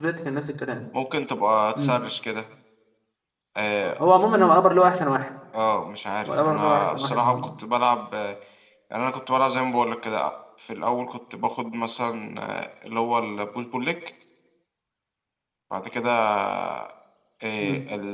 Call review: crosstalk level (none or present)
present